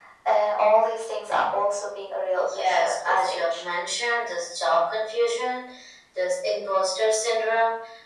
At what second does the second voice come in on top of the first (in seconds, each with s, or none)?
2.4 s